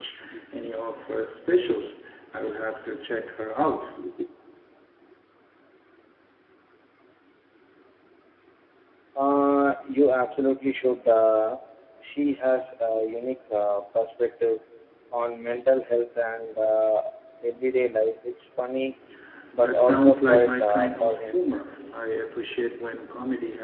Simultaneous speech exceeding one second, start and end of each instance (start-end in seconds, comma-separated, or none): 19.6-21.4